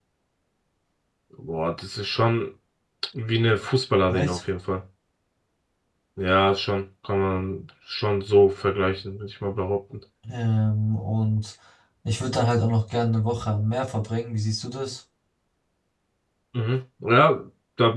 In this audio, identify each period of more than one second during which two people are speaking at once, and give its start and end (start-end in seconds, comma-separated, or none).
none